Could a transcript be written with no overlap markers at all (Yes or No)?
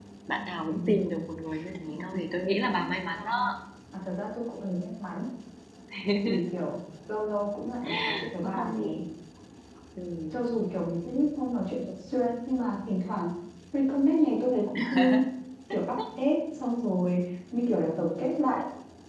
No